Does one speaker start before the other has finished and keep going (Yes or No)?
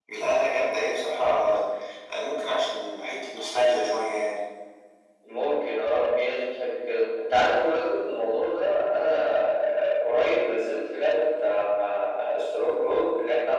No